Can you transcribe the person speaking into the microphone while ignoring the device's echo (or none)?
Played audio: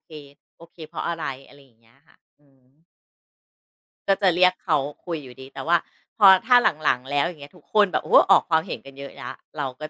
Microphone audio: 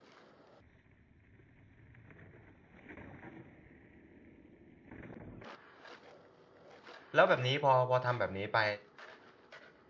แล้วแบบนี้พอพอทำแบบนี้ไป